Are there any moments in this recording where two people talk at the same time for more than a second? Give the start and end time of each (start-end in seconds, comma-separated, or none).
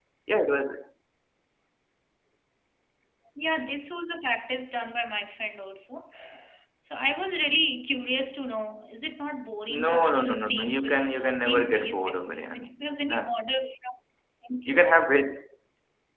9.8-13.2